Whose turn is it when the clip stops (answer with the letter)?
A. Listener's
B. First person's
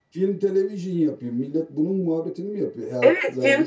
A